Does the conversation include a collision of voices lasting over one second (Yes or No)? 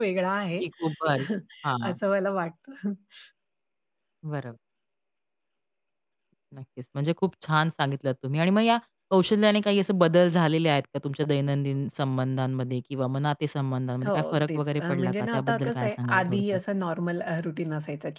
Yes